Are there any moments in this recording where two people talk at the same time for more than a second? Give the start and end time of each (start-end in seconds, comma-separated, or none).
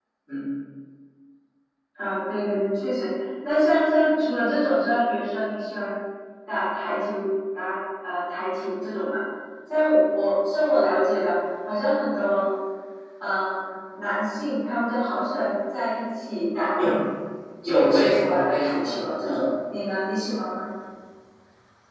17.6-19.5